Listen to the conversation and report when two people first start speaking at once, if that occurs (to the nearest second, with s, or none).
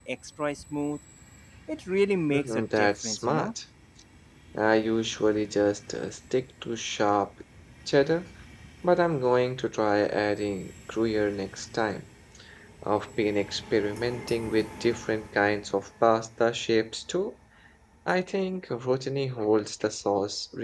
2 s